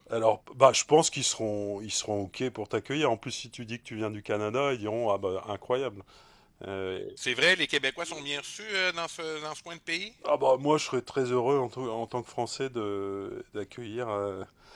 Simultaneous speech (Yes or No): No